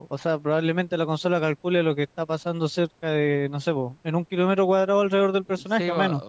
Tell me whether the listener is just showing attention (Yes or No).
No